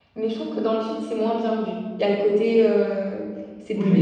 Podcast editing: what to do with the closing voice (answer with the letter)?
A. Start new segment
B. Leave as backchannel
A